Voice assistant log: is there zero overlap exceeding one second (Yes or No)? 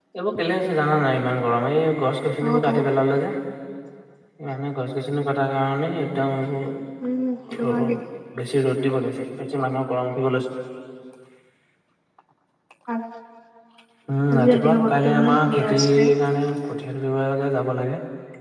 No